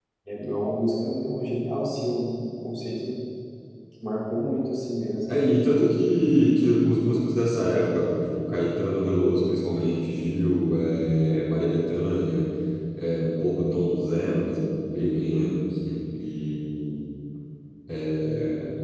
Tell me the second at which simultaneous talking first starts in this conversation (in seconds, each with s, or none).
none